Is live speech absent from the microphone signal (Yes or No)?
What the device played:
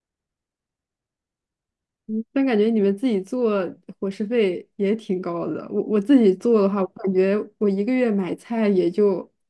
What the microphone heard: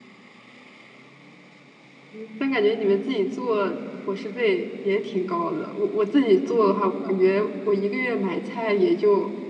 Yes